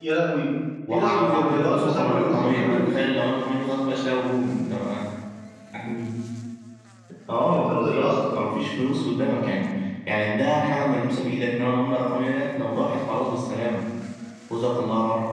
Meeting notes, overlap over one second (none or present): present